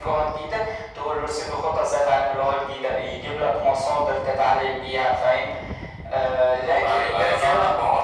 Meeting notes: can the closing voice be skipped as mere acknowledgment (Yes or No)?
No